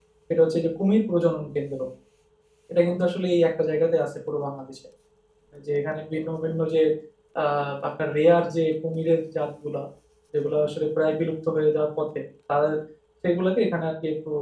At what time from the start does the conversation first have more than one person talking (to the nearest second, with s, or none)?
none